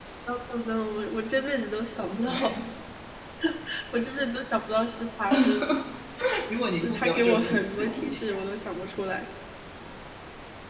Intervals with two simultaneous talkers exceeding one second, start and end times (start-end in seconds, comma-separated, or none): 6.8-8.4